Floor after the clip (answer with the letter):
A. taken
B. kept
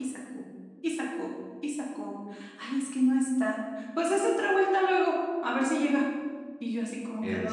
B